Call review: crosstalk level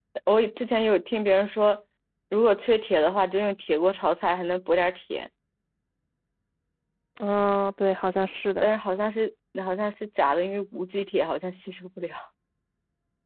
none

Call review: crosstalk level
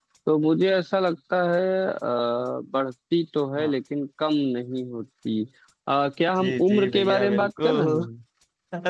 present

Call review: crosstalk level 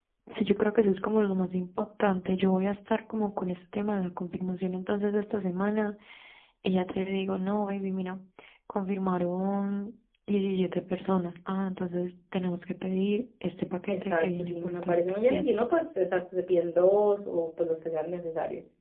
present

